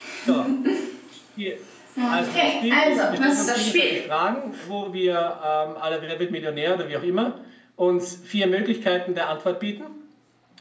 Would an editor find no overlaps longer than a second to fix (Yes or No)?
No